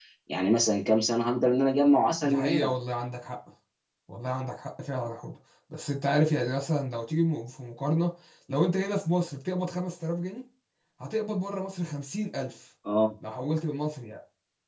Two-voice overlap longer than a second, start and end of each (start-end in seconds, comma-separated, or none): none